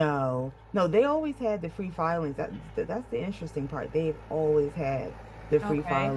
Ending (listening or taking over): listening